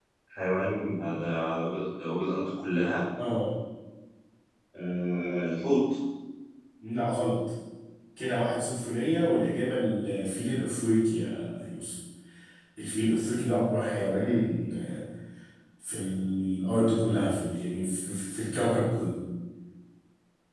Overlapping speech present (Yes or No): No